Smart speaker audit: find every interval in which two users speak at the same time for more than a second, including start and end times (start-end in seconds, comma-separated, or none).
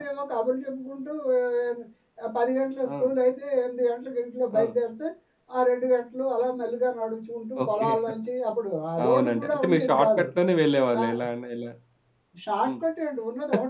9.0-10.3